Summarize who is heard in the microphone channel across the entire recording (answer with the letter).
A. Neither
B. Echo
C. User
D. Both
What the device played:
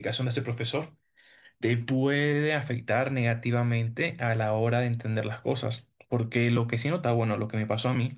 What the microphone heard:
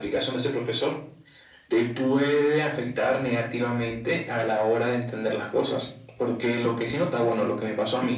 B